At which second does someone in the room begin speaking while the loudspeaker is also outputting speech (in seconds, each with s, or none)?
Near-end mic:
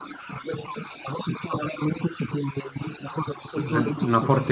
3.5 s